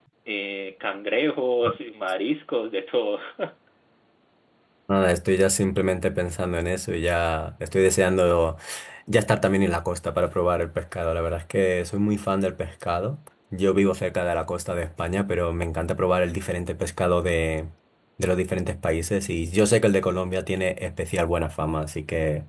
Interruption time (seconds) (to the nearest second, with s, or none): none